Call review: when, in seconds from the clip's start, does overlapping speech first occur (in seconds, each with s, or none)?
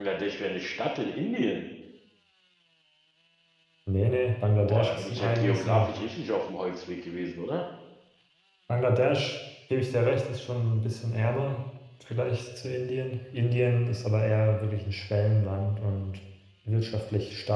4.6 s